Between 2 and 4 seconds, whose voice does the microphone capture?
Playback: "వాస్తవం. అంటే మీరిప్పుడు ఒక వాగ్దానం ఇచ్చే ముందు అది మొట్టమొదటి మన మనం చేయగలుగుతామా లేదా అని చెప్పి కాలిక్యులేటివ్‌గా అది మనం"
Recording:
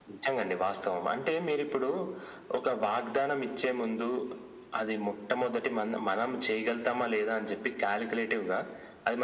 echo only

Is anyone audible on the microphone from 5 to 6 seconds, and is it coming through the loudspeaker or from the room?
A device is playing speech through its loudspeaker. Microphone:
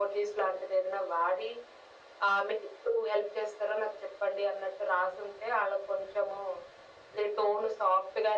echo only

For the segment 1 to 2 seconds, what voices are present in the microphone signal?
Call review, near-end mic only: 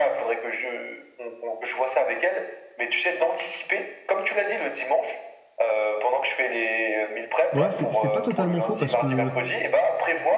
echo only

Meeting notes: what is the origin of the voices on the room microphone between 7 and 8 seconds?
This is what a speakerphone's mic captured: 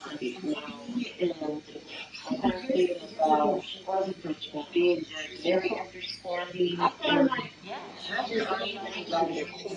both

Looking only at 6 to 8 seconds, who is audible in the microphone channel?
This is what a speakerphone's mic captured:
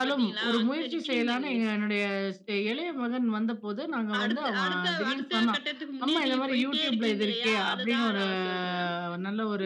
both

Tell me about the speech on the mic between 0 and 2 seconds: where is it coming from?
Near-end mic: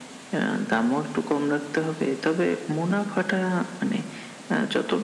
echo only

